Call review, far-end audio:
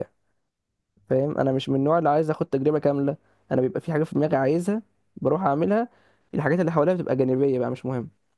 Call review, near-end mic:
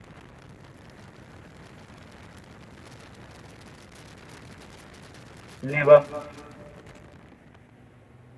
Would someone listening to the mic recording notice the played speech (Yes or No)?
No